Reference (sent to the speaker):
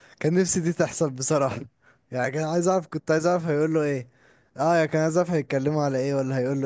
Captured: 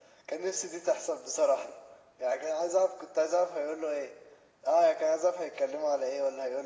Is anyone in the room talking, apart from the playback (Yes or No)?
No